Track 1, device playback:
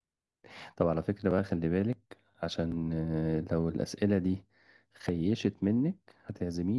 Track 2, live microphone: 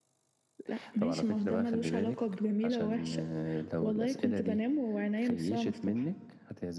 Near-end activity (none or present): present